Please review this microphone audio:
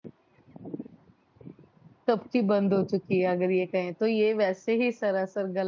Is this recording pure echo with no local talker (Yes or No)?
No